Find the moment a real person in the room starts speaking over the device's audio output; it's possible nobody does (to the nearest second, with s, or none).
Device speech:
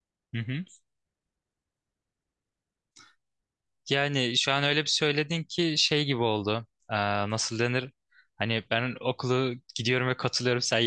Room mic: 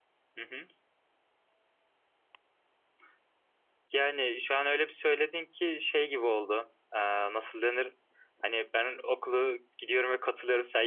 none